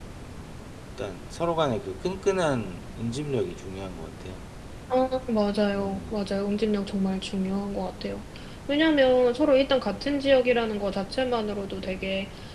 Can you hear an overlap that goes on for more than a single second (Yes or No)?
No